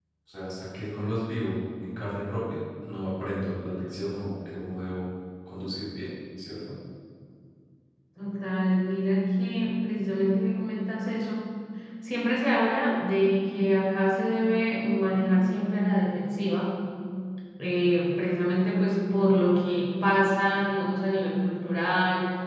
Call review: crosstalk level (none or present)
none